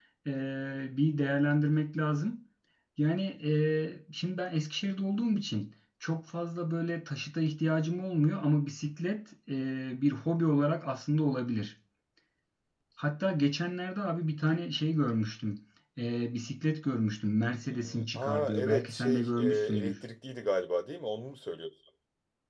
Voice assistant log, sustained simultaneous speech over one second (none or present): present